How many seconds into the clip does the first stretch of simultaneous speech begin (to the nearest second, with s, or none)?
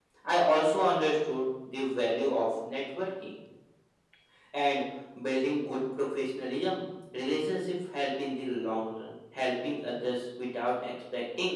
none